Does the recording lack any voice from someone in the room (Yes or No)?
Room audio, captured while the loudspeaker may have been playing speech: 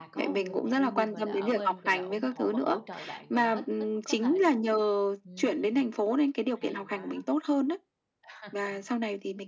No